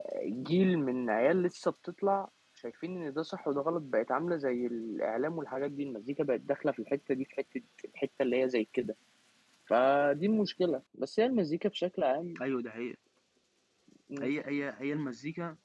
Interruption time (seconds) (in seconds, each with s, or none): none